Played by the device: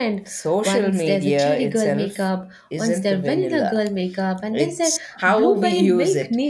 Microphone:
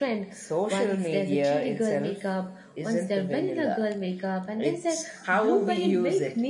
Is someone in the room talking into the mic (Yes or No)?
No